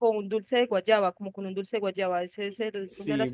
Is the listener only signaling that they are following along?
No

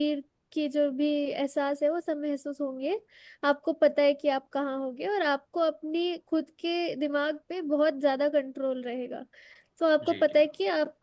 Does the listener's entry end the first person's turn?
No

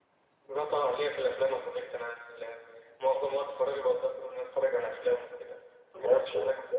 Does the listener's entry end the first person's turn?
Yes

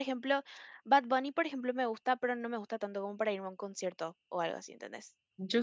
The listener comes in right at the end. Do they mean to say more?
Yes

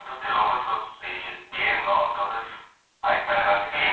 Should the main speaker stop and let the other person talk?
Yes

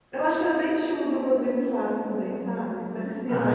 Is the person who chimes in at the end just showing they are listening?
No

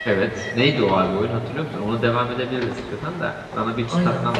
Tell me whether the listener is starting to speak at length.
Yes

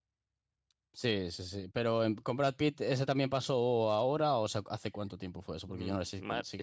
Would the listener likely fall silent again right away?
No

